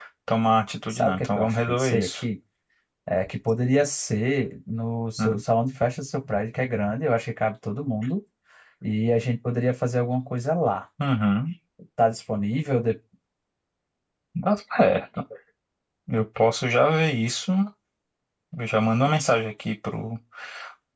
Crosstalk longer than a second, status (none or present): present